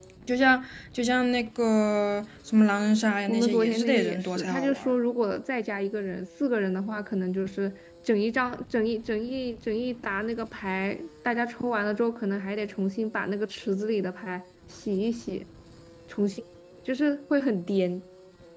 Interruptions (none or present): present